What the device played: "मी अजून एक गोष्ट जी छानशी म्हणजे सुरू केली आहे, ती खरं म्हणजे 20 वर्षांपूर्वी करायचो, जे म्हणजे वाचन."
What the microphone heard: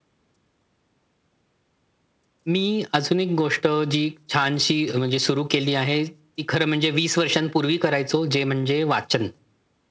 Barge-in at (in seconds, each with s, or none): none